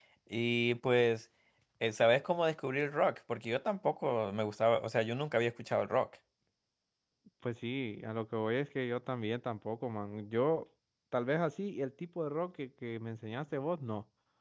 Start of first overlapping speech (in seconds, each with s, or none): none